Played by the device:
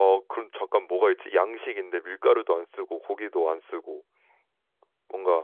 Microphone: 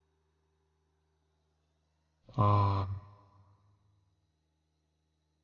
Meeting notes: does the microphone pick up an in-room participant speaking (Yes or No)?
Yes